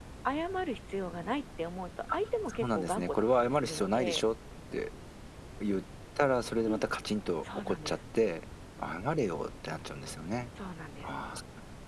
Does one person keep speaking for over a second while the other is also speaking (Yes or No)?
Yes